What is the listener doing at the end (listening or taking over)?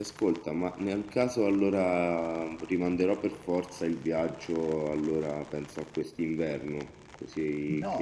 taking over